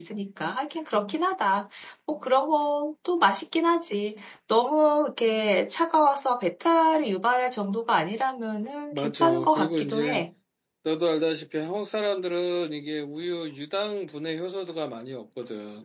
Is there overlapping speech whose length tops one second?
Yes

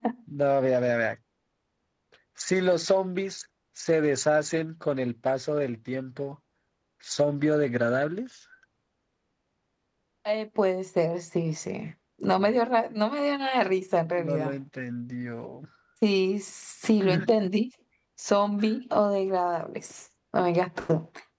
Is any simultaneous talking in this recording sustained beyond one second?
No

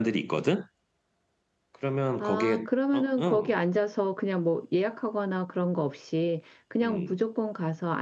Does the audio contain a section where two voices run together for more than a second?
Yes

